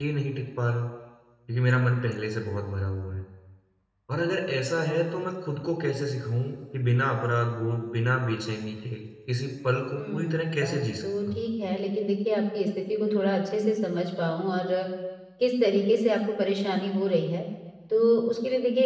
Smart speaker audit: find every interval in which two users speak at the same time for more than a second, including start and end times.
9.9-11.4

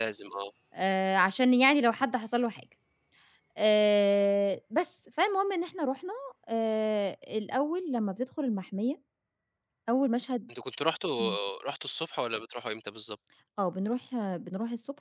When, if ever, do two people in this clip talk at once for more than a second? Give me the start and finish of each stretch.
none

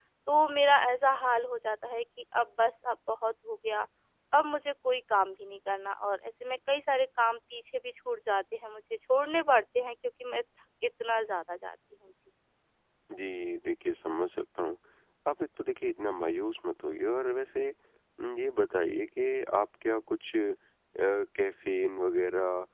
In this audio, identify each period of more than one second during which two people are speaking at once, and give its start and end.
none

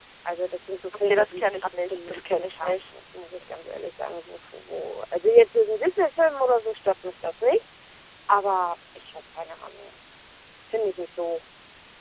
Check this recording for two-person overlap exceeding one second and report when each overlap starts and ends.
1.0-2.9

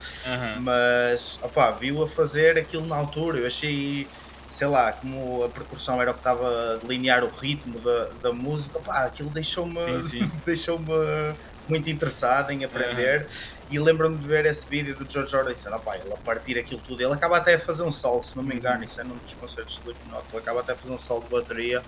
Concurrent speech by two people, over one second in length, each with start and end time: none

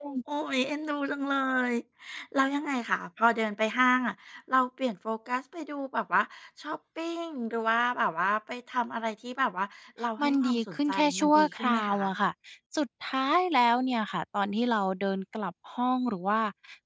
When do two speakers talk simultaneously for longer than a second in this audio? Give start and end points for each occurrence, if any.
10.2-11.9

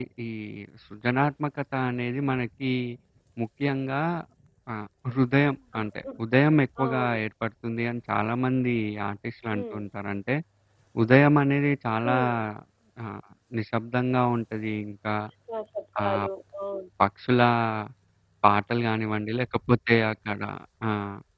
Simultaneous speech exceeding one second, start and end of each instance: none

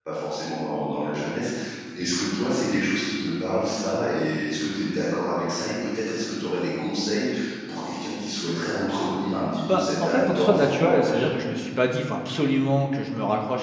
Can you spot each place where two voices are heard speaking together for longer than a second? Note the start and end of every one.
9.7-11.5

